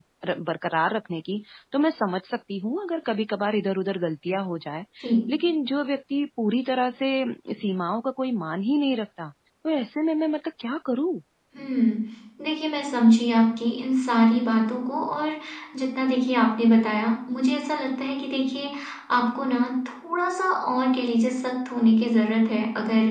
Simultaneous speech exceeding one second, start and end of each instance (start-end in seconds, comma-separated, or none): none